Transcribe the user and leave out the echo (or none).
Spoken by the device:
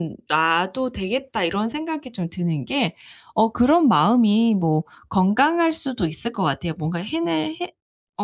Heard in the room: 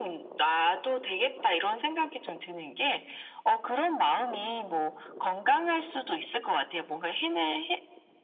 none